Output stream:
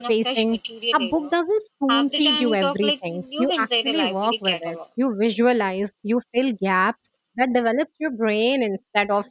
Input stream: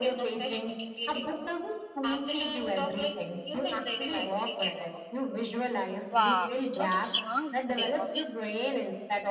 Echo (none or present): present